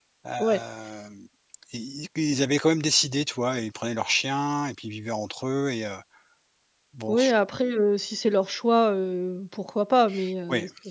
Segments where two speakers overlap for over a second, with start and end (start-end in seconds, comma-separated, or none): none